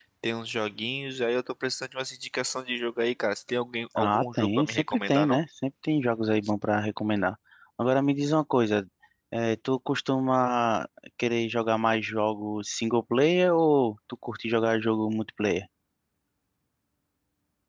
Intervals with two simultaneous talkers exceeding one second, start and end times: 4.0-5.4

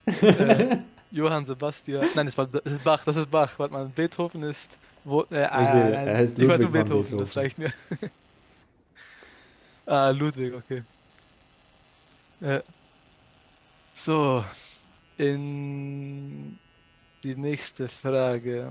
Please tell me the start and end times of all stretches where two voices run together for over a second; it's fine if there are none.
5.5-7.5

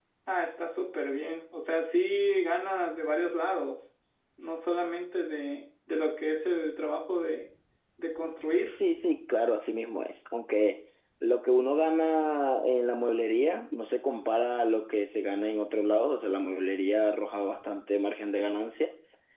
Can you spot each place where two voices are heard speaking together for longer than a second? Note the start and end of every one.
none

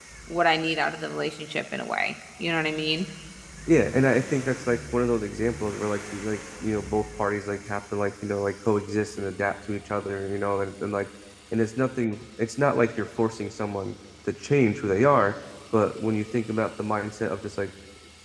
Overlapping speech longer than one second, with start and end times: none

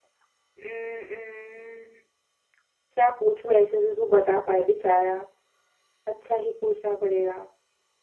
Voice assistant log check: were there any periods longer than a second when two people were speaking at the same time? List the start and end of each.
none

